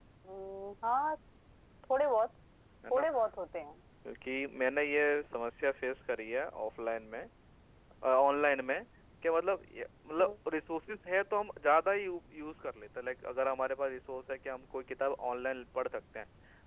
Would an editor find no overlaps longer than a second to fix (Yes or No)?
Yes